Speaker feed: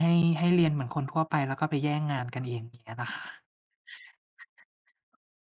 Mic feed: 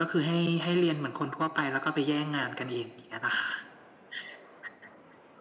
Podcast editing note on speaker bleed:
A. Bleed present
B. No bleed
A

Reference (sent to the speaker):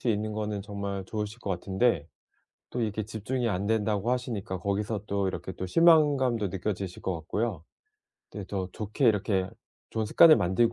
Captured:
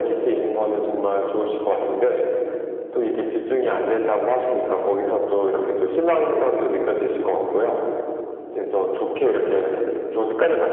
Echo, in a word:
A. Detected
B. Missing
A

